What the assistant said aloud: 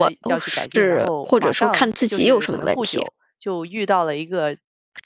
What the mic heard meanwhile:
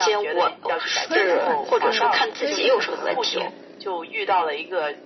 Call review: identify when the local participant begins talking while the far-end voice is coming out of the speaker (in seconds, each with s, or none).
1.0 s